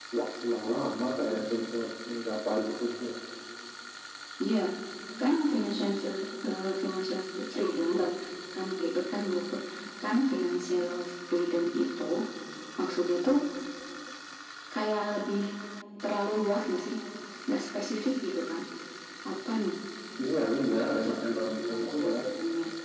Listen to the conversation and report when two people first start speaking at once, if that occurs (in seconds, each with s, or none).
20.7 s